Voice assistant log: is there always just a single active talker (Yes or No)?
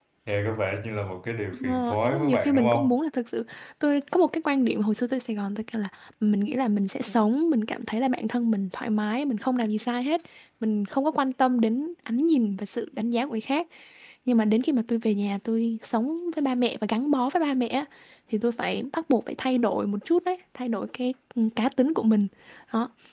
No